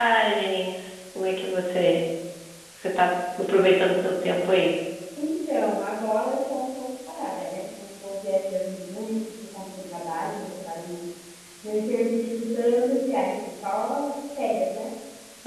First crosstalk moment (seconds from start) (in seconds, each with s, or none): none